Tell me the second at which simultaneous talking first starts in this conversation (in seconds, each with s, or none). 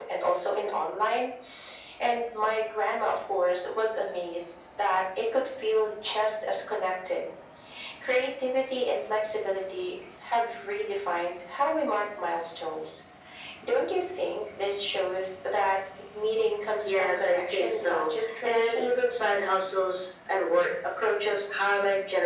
16.8 s